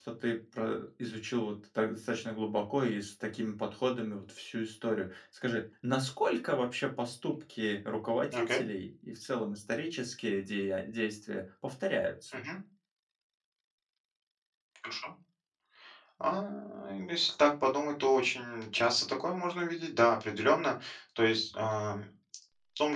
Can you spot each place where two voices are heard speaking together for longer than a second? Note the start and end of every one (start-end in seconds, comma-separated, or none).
none